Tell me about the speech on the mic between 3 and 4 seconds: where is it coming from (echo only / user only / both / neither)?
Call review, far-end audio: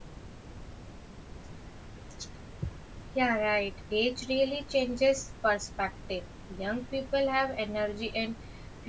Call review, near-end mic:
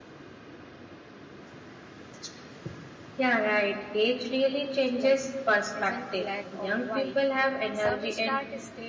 echo only